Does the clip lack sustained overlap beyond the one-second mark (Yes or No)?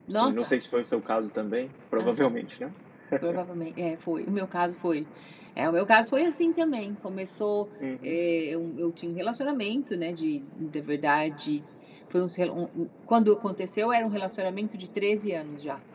Yes